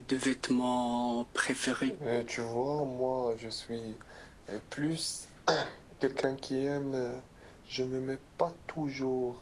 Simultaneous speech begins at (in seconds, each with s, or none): none